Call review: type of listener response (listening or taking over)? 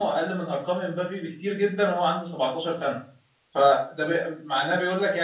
listening